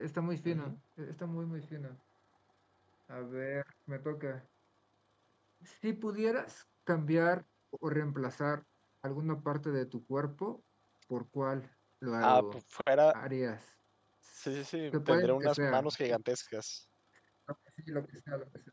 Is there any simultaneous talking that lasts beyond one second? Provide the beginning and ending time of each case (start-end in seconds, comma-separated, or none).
14.9-16.2